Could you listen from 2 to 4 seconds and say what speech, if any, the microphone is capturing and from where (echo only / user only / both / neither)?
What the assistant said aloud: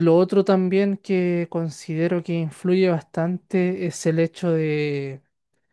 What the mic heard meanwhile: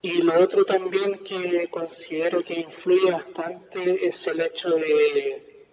echo only